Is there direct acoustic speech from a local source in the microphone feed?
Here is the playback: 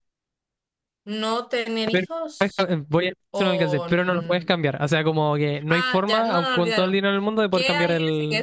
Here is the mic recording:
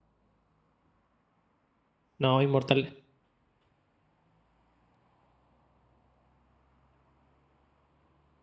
Yes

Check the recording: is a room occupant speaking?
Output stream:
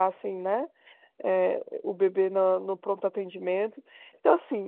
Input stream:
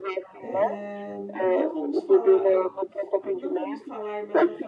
Yes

